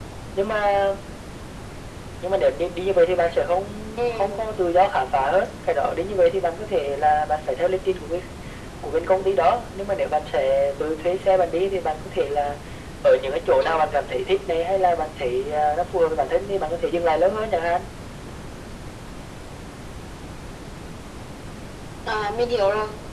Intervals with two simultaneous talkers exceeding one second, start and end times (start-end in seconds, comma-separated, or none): none